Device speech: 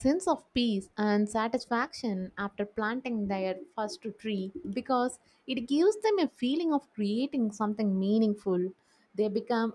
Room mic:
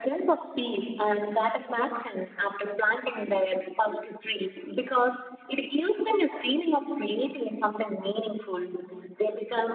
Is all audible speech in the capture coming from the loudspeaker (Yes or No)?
Yes